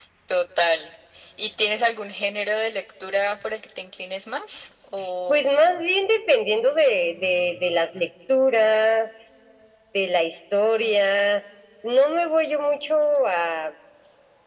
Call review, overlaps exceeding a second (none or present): none